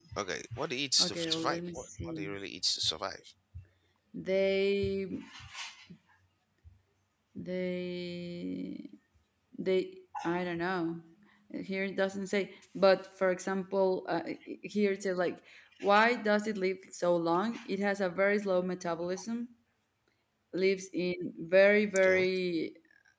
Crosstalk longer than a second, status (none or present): present